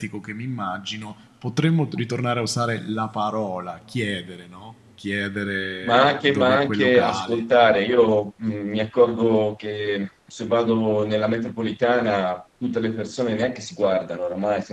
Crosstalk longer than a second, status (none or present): present